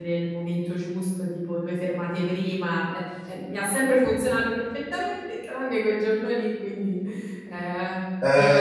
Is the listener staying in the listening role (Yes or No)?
No